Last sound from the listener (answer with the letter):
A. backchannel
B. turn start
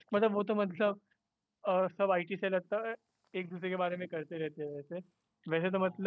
A